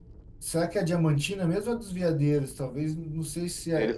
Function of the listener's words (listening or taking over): taking over